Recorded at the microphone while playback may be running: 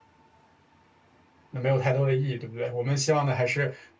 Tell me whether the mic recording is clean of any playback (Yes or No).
Yes